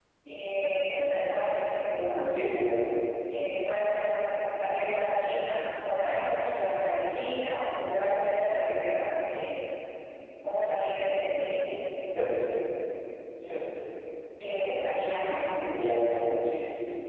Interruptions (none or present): none